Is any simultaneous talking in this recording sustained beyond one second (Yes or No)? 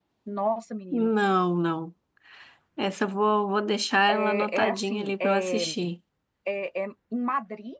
Yes